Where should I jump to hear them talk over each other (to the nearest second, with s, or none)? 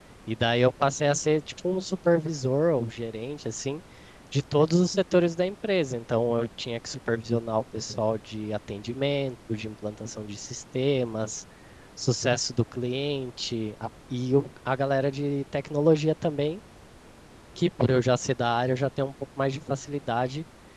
none